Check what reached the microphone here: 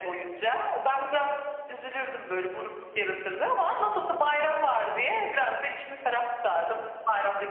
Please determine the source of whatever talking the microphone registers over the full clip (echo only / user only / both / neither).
echo only